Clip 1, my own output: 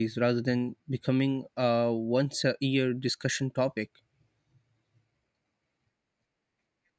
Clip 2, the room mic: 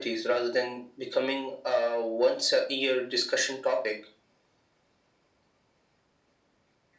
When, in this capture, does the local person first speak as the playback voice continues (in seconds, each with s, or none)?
none